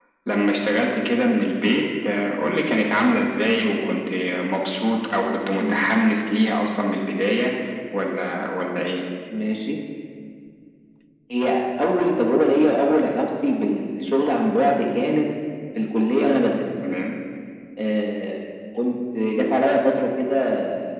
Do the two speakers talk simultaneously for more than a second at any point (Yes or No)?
No